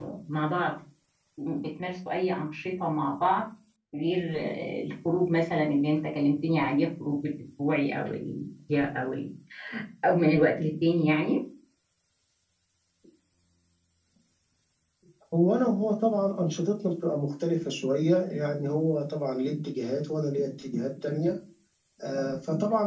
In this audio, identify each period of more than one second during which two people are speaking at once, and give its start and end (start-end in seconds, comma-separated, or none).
none